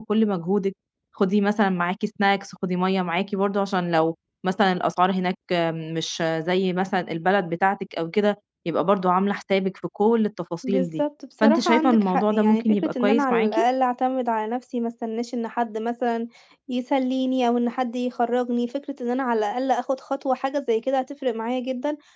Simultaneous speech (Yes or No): Yes